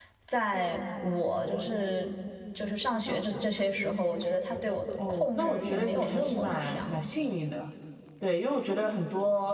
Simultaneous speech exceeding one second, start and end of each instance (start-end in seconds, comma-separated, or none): 5.1-7.0